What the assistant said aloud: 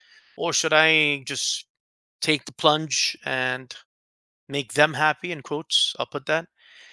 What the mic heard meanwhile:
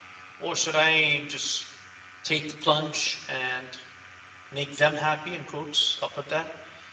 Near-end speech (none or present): none